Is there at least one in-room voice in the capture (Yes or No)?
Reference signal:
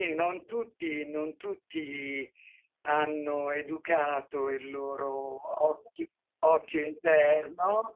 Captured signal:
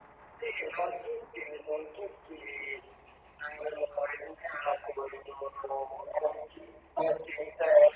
No